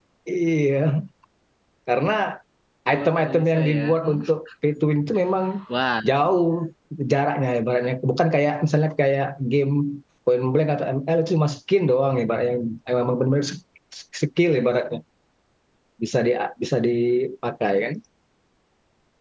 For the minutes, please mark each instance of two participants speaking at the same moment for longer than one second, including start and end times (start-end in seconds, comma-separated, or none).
2.9-4.2